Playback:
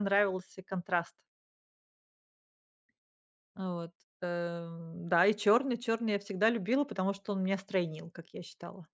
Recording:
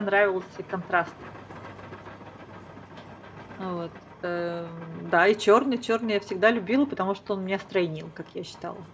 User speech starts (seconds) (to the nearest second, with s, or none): none